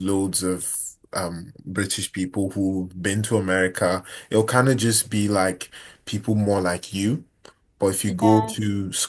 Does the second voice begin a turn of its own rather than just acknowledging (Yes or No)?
No